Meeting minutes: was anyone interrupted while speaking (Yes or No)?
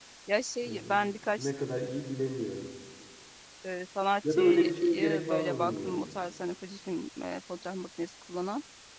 Yes